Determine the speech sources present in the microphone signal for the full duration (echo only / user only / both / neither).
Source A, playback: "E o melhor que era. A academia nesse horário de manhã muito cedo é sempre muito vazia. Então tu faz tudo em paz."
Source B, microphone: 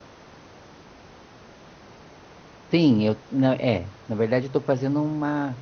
user only